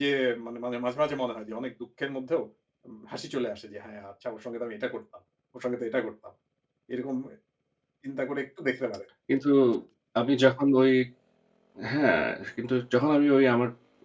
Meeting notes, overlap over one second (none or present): none